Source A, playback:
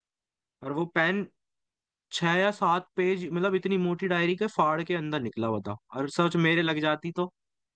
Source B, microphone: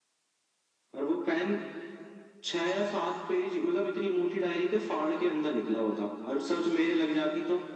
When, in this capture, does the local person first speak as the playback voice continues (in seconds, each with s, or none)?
none